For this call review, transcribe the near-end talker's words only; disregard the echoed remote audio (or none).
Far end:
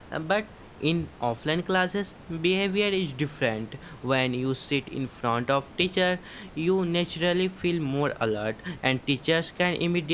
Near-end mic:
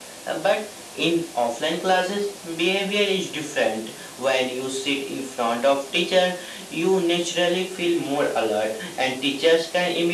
none